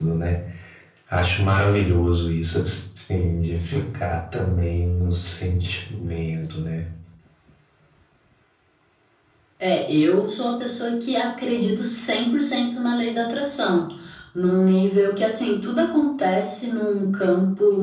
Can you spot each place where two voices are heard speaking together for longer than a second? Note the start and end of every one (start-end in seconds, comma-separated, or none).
none